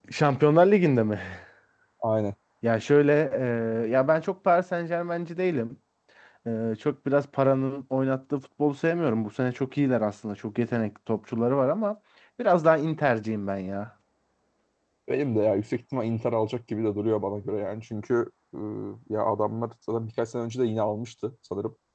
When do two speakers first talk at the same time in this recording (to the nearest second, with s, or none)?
none